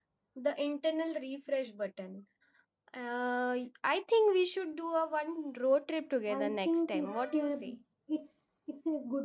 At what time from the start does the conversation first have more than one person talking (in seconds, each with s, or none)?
6.3 s